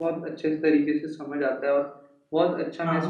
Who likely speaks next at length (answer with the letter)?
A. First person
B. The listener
A